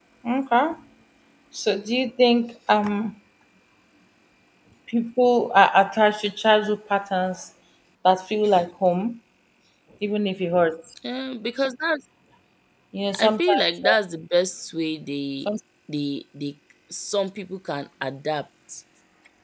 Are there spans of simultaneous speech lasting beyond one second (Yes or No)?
No